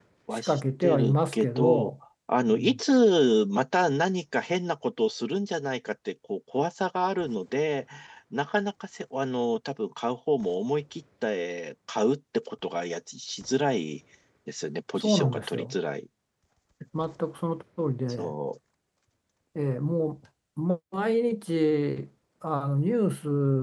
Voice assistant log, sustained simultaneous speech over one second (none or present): present